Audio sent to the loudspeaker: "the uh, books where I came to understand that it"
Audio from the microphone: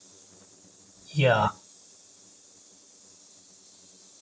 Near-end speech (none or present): present